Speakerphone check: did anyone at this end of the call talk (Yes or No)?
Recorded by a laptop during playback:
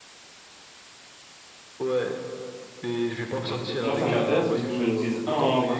Yes